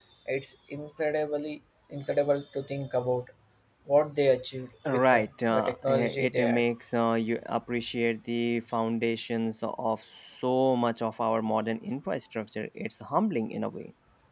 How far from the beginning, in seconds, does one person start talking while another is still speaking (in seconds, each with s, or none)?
4.8 s